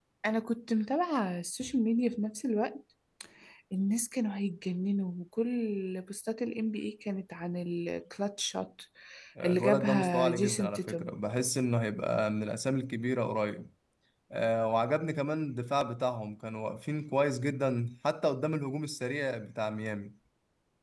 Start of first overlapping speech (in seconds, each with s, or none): 9.4 s